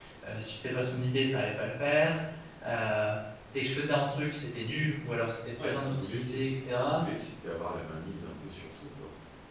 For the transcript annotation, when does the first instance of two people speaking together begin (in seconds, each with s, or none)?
5.6 s